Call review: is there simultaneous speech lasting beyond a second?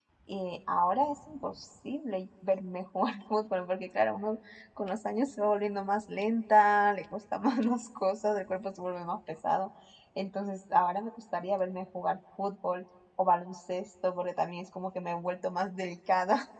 No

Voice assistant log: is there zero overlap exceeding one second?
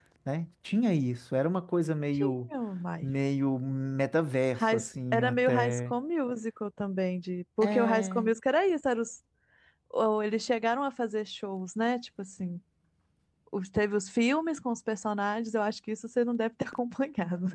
No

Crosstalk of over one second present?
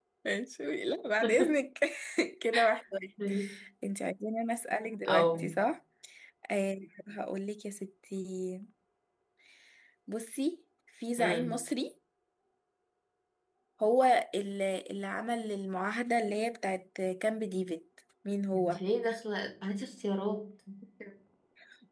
No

